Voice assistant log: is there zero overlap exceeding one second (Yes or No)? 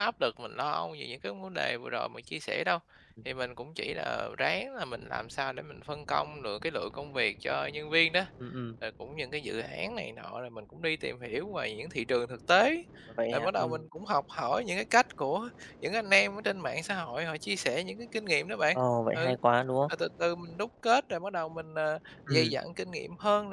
Yes